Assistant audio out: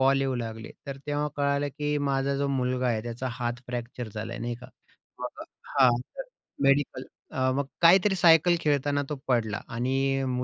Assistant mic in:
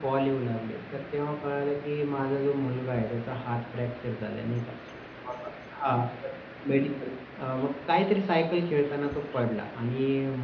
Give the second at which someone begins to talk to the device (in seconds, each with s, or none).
none